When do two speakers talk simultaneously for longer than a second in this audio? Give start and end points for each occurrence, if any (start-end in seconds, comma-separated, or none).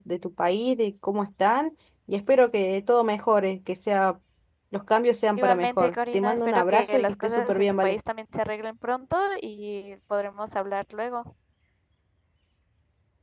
5.4-8.0